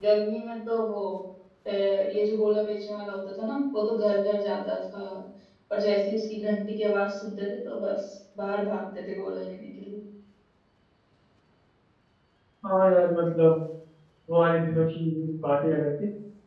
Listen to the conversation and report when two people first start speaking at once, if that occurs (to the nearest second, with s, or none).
none